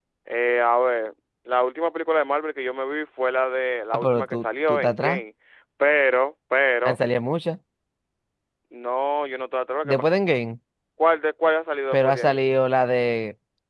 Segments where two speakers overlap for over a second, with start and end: 3.9-5.2

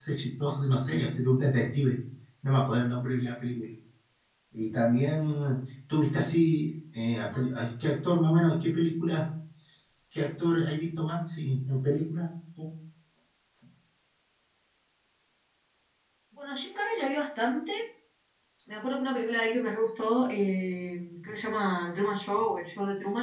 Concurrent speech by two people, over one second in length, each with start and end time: none

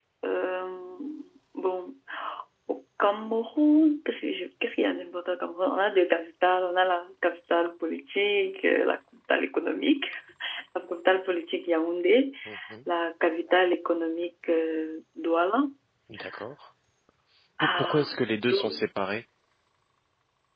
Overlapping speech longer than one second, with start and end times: 17.6-18.8

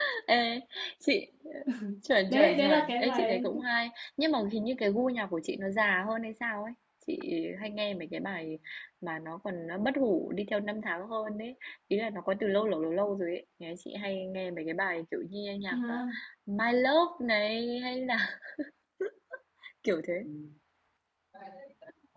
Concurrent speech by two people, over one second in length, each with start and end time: 2.3-3.6

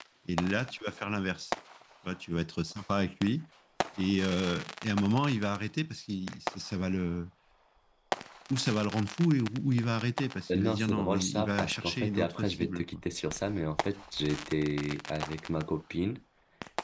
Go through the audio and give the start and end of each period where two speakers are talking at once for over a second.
10.5-13.0

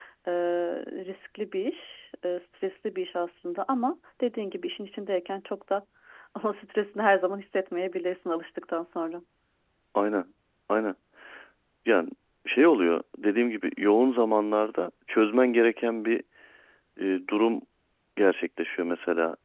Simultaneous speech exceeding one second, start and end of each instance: none

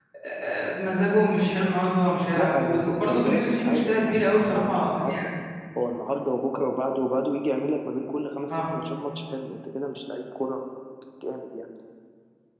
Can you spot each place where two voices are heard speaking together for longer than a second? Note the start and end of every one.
2.4-5.1

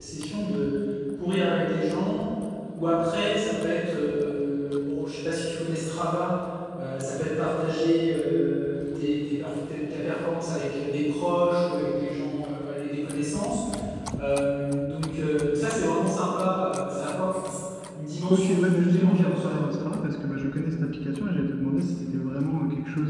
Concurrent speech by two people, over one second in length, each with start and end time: 18.3-19.6

